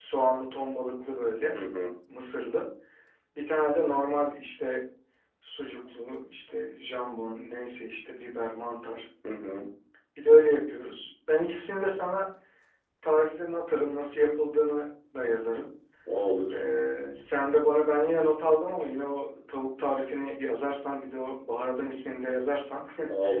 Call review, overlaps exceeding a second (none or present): none